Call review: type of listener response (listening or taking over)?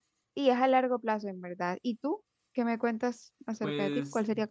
taking over